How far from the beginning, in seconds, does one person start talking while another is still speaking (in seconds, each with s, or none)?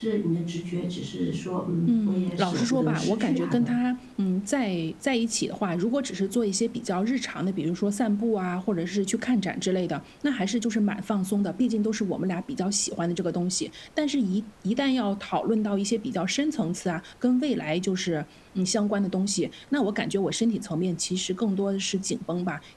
1.9 s